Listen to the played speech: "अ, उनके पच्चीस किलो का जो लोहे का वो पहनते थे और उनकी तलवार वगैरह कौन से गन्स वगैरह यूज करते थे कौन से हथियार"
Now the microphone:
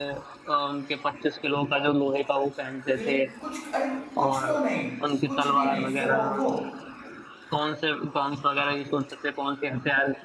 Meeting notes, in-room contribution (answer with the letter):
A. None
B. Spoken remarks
B